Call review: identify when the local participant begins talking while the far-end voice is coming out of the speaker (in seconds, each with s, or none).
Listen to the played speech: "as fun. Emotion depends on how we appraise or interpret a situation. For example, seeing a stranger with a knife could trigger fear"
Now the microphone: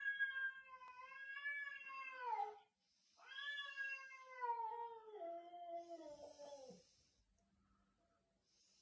none